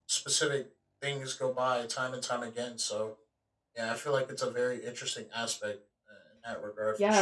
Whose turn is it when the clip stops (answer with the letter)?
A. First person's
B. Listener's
B